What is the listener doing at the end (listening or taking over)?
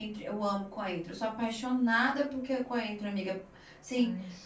listening